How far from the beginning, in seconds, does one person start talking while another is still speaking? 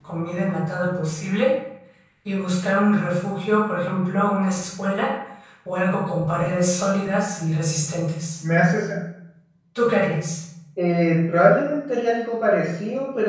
none

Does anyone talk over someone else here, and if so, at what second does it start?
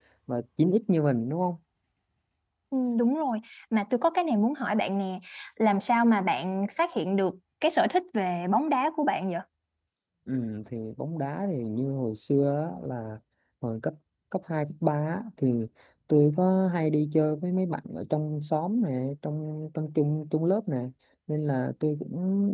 none

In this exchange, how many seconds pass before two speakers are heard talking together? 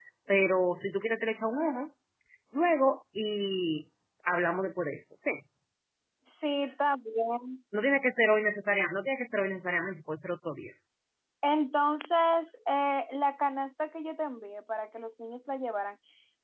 none

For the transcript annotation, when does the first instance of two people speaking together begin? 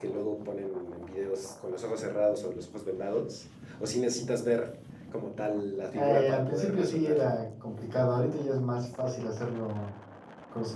5.9 s

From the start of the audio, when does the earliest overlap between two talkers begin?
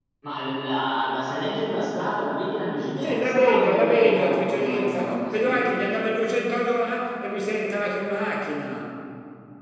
3.0 s

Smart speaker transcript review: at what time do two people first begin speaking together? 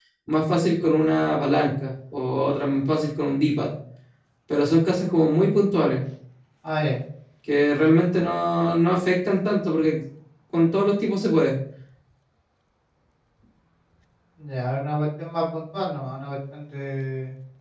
none

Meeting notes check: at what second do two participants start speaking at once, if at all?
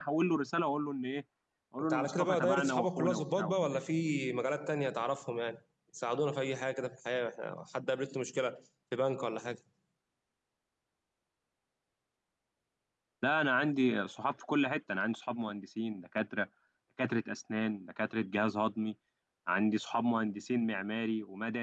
1.8 s

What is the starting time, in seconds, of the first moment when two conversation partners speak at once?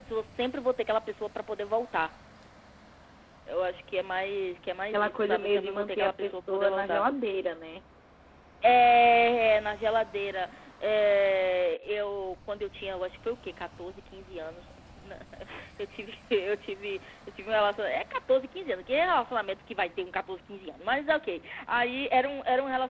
4.9 s

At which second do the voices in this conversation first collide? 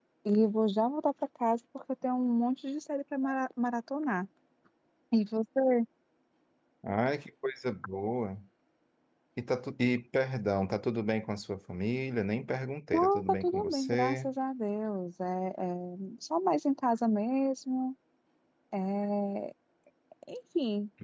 12.9 s

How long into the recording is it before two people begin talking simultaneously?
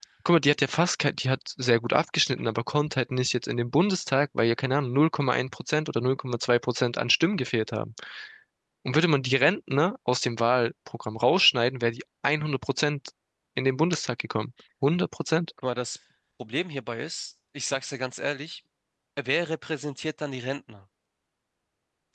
none

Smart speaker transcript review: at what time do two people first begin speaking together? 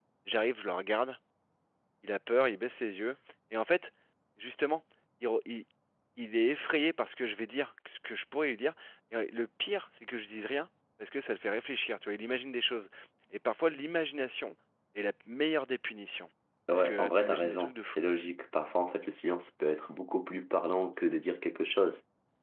16.7 s

